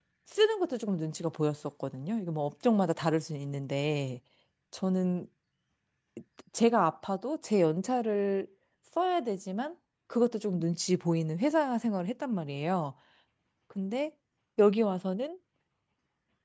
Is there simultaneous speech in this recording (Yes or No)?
No